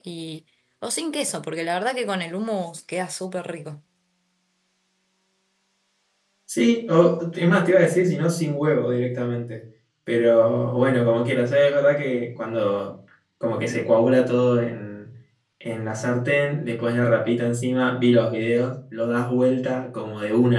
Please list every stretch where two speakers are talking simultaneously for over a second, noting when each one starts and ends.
none

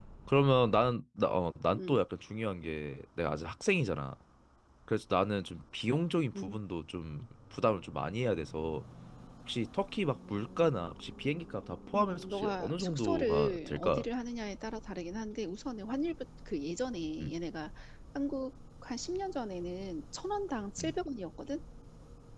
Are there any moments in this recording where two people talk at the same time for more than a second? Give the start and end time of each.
11.9-14.0

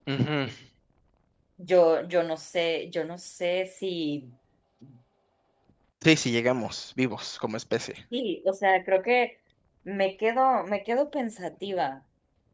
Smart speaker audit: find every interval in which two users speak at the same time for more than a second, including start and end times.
none

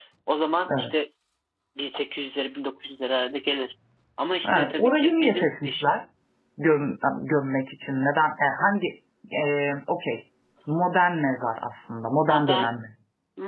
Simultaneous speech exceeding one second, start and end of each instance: 4.4-5.9

